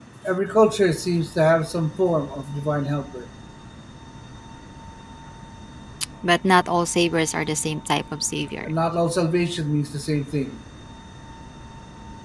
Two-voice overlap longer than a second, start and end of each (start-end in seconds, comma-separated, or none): none